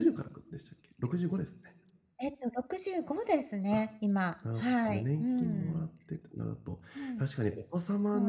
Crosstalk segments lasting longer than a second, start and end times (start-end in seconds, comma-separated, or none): 4.6-5.8